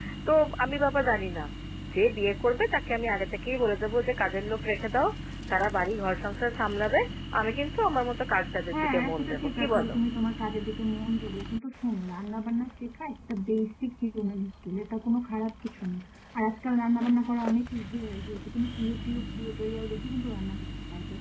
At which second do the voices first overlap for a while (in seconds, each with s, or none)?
8.7 s